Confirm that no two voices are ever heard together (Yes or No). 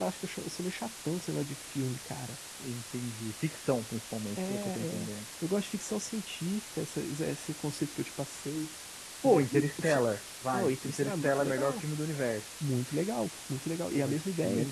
No